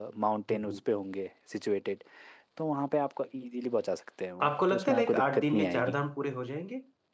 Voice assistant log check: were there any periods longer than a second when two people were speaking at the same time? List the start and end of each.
4.5-6.0

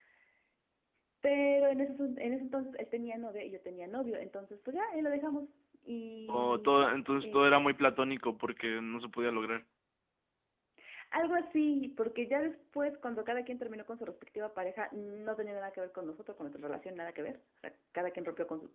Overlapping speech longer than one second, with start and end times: 6.3-7.7

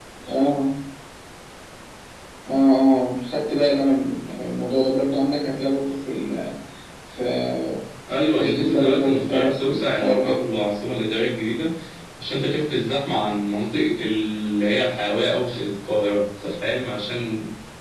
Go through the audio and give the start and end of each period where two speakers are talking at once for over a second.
8.4-10.5

